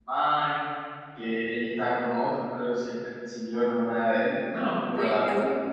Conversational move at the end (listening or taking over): taking over